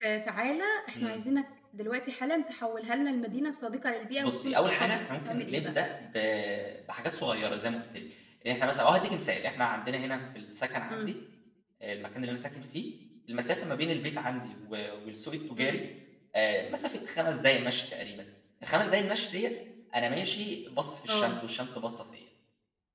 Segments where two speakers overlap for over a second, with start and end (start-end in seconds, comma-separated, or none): 4.2-5.7